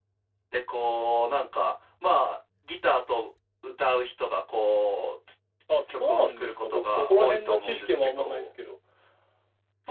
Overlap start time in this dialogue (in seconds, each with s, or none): 5.9 s